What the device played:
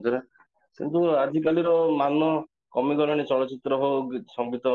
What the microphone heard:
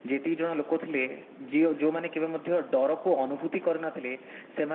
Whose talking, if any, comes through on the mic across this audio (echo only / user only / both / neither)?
user only